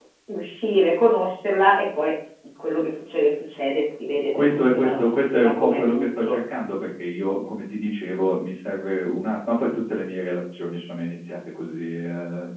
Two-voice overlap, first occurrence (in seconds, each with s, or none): 4.3 s